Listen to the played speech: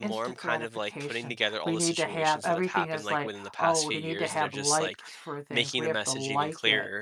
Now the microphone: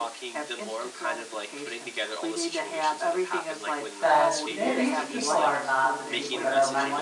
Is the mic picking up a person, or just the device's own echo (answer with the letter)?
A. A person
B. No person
A